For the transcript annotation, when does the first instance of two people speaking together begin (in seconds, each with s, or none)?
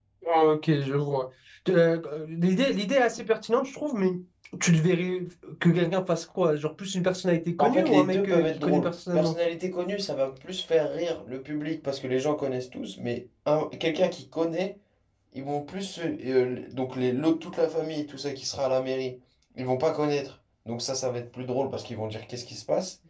7.6 s